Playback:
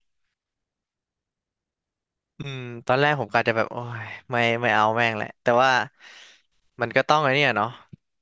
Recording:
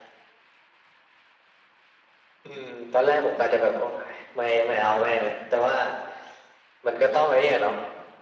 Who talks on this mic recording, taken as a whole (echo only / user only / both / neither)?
echo only